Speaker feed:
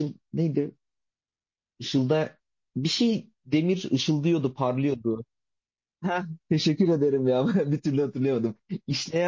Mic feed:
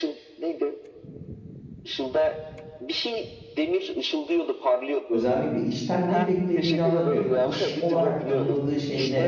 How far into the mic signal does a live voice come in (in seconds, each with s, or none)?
5.1 s